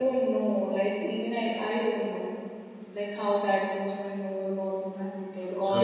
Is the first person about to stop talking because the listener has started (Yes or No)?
No